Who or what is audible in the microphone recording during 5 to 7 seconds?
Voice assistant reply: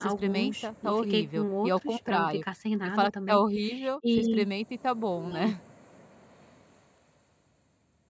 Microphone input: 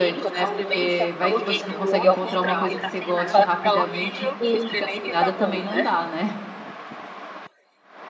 both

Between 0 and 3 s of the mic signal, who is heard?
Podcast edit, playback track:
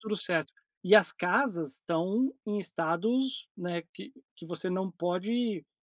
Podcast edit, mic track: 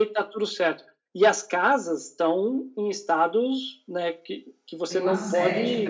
echo only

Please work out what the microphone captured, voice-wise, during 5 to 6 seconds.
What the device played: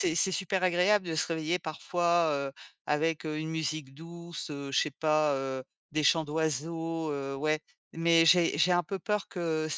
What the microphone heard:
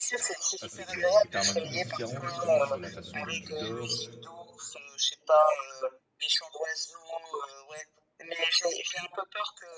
echo only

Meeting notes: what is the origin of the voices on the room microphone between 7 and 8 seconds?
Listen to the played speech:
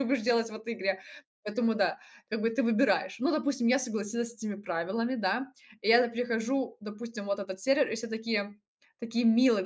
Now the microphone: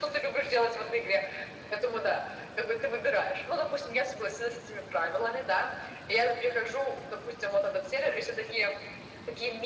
echo only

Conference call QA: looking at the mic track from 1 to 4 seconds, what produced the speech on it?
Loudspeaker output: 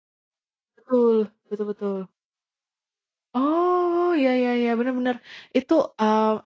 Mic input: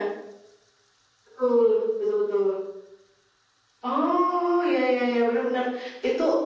echo only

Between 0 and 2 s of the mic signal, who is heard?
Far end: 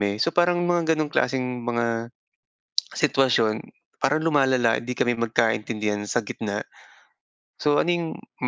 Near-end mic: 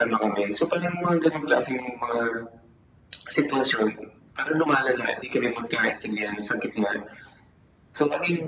echo only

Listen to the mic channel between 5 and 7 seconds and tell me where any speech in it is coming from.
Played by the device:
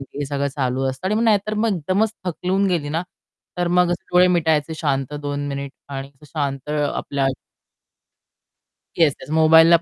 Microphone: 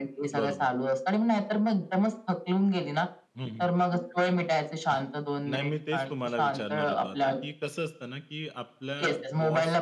both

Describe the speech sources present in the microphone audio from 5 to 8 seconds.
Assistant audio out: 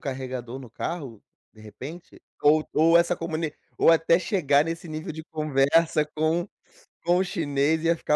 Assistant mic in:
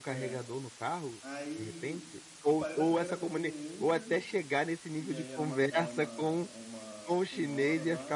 both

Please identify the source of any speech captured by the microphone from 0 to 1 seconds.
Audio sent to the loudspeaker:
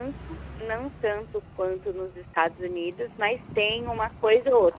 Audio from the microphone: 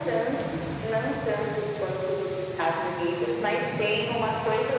echo only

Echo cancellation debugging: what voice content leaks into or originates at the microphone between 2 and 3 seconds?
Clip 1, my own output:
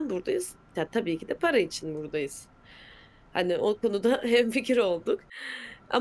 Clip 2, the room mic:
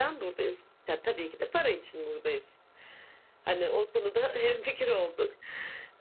echo only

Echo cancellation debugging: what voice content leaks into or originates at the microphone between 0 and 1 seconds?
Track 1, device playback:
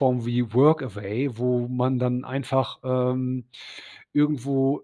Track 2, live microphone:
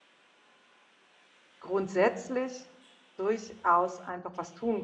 neither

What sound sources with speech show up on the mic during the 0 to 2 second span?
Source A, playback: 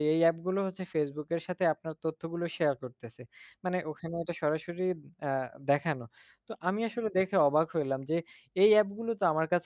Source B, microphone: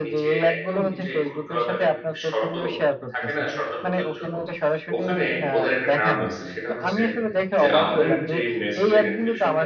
both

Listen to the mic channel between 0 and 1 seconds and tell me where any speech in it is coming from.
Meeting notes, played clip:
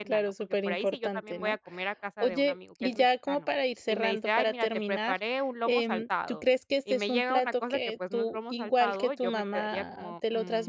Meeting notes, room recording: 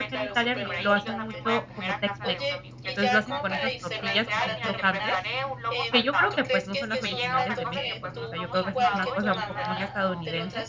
both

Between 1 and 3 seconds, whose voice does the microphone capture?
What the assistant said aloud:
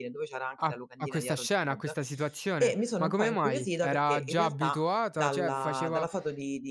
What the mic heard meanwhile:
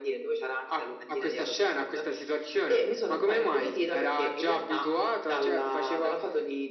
echo only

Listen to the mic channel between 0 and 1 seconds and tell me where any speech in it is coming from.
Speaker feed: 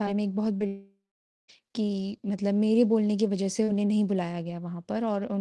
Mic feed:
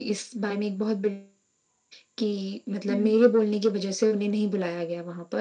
echo only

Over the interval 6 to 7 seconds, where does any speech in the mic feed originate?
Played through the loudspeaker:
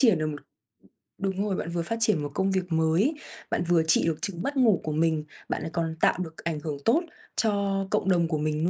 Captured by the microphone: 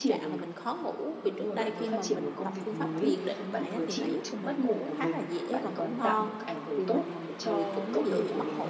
both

